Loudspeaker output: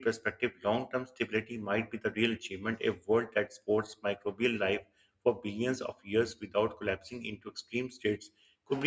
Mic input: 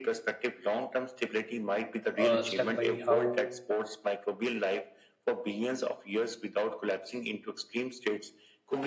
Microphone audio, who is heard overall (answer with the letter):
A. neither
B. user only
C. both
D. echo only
C